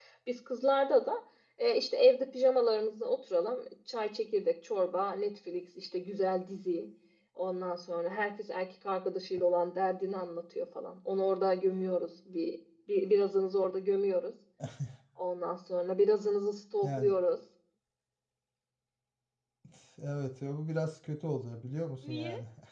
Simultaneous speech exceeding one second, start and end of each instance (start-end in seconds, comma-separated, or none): none